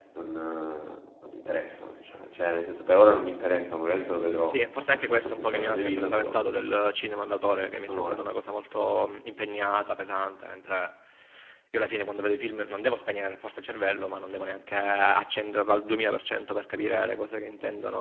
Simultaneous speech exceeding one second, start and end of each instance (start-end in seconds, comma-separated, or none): 4.5-6.4